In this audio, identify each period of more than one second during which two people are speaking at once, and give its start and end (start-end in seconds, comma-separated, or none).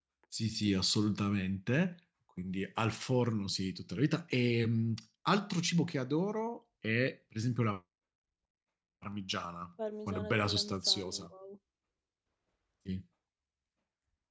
10.1-11.3